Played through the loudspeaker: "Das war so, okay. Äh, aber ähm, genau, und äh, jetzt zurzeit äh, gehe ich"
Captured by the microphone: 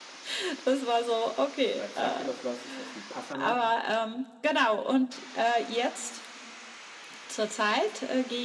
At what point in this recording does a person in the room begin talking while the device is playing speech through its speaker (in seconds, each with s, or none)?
1.6 s